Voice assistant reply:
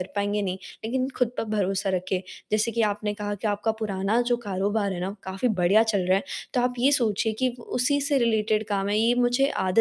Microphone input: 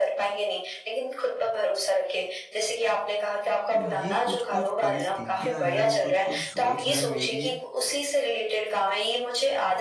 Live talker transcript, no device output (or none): तो ये कुछ-कुछ परिस्थितियाँ हैं, कुछ-कुछ सोच है मेरी,